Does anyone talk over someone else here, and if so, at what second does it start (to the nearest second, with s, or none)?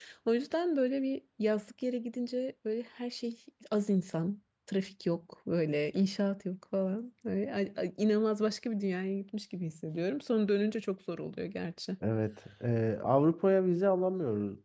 none